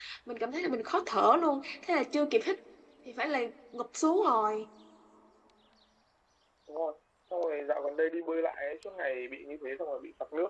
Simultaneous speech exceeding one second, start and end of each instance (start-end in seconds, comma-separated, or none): none